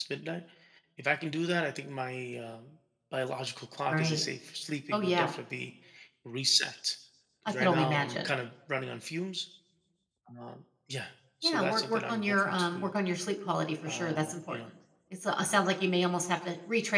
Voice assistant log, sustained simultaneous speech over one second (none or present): present